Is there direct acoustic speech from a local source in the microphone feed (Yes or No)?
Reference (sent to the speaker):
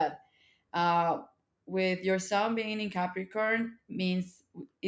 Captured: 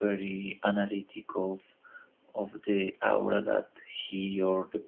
Yes